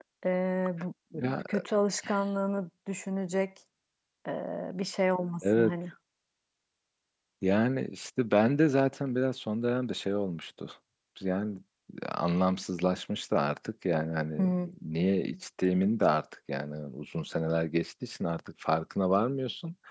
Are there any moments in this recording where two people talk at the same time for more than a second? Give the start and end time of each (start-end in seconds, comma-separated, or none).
none